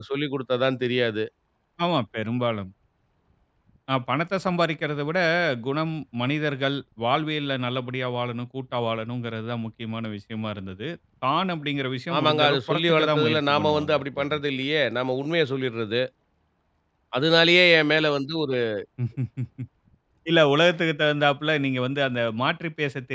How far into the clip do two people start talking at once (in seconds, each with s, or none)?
12.2 s